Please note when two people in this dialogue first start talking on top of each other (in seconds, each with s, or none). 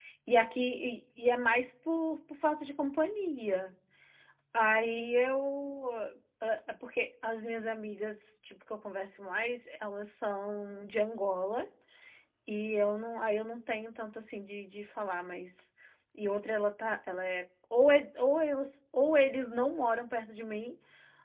none